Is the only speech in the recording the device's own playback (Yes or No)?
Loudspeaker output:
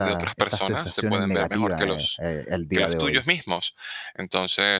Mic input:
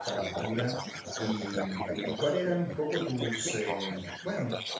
No